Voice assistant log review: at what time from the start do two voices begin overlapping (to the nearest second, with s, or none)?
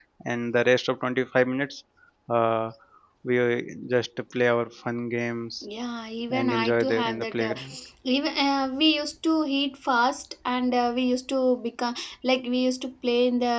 6 s